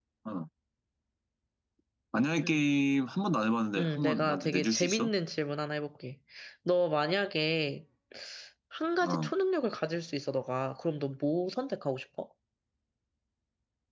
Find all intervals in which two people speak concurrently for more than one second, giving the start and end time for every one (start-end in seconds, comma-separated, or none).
3.8-5.1